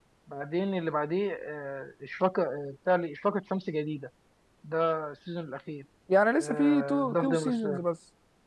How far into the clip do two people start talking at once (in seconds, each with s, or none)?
6.4 s